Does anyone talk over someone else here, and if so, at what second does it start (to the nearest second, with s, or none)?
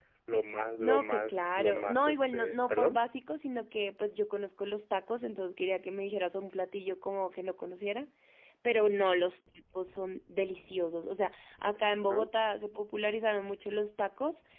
1 s